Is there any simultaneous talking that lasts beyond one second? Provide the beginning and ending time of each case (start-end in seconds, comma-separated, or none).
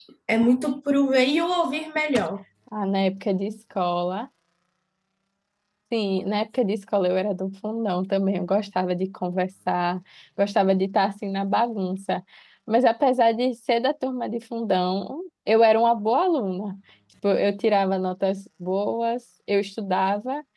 none